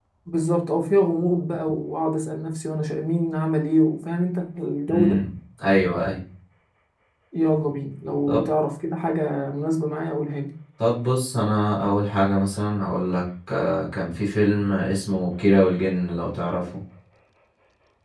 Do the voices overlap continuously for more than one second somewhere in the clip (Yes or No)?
No